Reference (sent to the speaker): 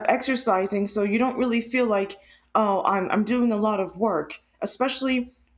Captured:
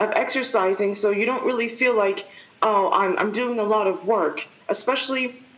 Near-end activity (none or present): none